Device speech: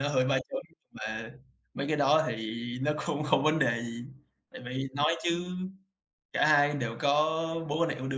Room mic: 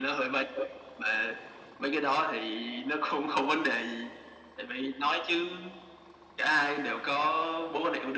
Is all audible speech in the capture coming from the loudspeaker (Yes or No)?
Yes